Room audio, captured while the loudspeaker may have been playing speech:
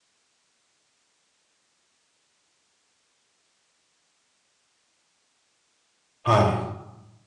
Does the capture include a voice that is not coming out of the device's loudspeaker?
Yes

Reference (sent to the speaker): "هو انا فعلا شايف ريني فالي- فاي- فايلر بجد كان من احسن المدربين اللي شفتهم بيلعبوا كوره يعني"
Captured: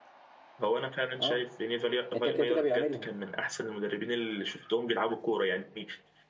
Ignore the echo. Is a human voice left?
Yes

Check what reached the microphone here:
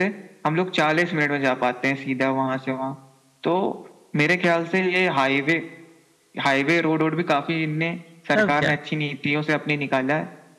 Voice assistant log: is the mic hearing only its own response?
No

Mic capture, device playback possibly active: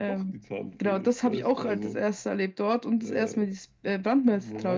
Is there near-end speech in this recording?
No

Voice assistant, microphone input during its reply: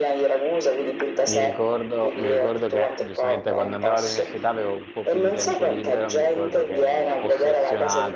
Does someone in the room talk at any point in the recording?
Yes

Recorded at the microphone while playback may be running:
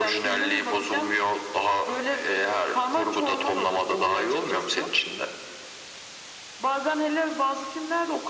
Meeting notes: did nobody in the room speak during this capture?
Yes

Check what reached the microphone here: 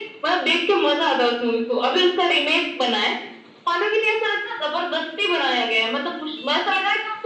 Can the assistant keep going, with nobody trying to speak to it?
Yes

